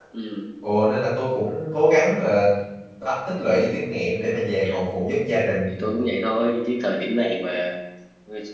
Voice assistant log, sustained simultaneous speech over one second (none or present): none